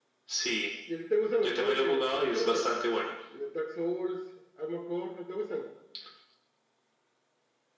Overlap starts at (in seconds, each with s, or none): 1.4 s